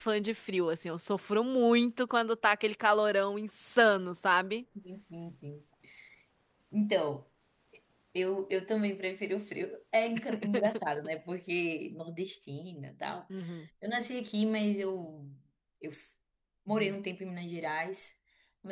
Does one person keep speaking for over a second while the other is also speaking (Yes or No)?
No